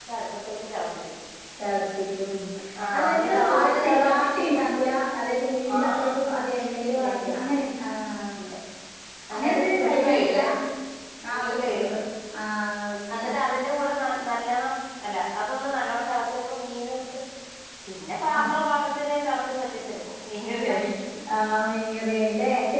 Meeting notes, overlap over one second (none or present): present